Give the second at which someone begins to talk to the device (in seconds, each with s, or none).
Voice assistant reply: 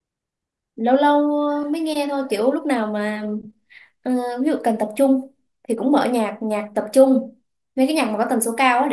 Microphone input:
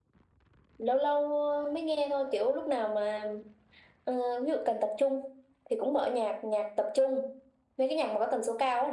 none